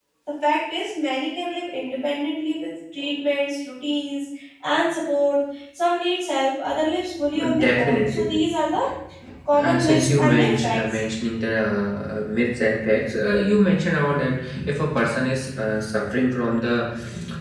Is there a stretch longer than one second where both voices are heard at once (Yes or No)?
Yes